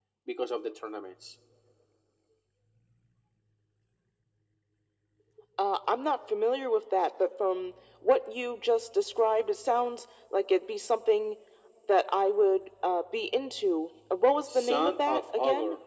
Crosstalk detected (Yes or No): Yes